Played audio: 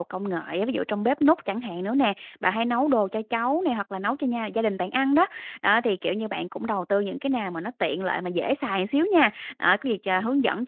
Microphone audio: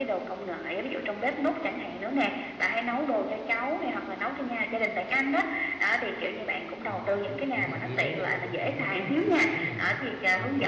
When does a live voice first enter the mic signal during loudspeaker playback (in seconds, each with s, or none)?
6.8 s